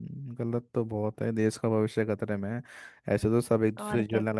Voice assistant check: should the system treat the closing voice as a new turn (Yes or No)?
No